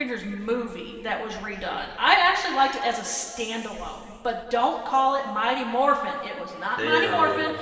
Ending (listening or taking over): listening